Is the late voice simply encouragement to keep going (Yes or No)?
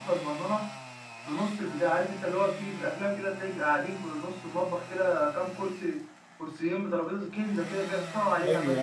No